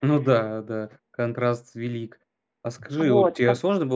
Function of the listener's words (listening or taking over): listening